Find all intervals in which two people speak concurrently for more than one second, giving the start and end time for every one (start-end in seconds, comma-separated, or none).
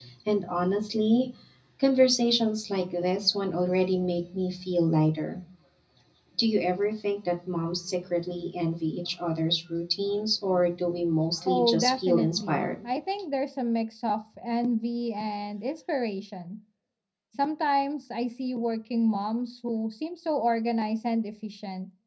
11.5-12.7